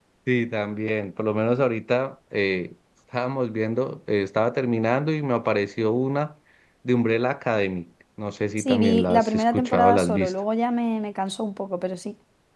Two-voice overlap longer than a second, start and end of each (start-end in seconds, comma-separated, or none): 8.6-10.3